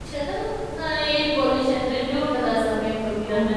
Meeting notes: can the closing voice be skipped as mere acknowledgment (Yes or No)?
No